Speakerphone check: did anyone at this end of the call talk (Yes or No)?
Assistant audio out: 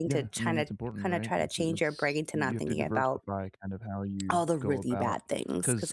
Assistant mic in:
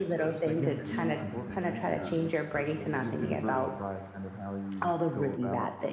Yes